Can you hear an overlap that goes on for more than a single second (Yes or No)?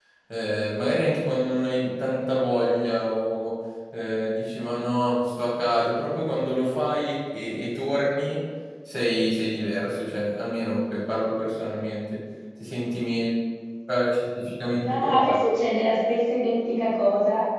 No